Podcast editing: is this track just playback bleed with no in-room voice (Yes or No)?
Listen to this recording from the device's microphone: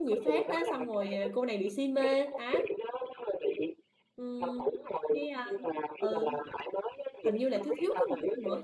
No